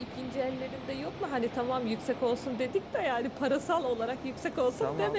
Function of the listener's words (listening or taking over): taking over